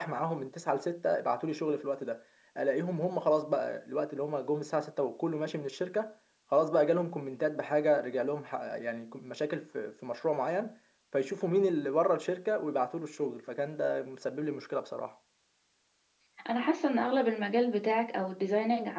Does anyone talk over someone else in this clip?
No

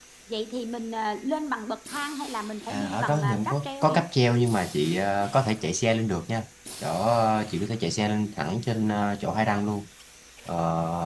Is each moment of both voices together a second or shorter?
No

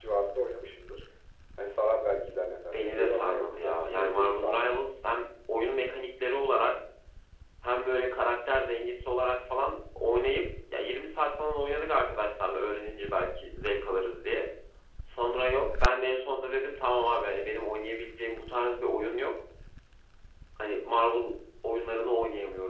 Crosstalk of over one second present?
Yes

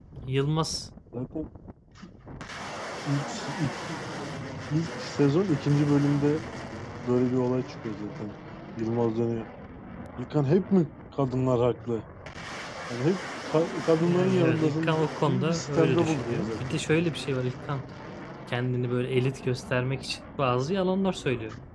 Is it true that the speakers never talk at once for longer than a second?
No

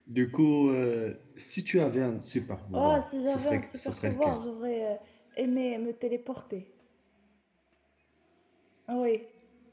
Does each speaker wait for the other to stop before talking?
No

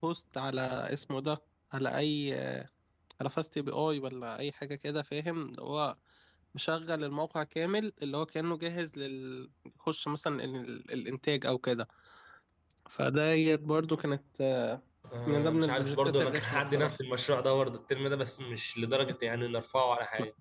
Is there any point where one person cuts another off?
Yes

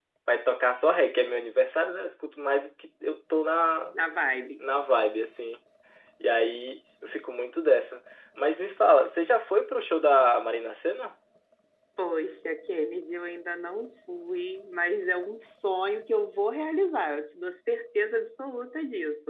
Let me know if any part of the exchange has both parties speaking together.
No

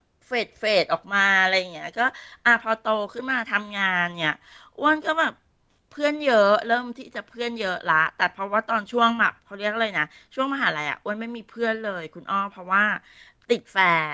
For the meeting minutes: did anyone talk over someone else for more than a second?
No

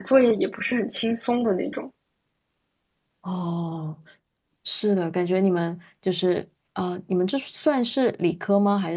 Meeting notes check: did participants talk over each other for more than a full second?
No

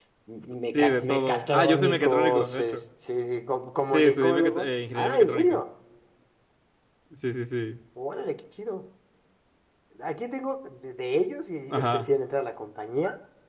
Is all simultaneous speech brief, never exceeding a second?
No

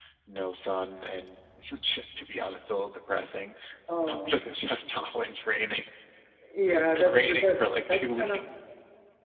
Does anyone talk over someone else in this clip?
Yes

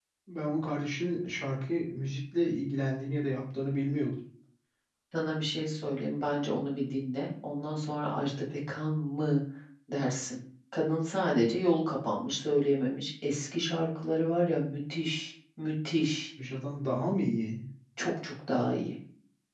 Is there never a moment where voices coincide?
Yes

